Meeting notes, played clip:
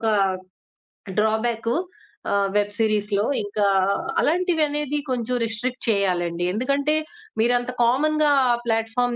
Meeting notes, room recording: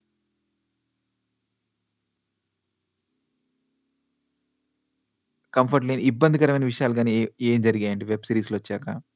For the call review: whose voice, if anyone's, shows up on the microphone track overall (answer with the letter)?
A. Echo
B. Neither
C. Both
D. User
D